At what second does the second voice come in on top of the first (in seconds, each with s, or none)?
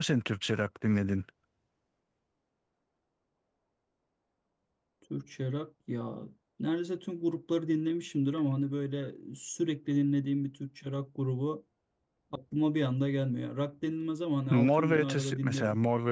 14.5 s